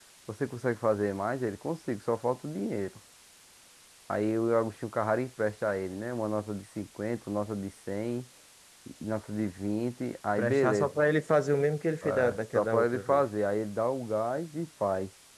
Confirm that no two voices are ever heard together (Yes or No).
No